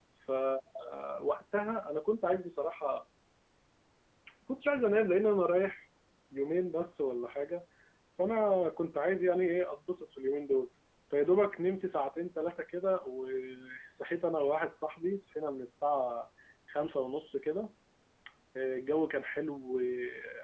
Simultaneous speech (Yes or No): No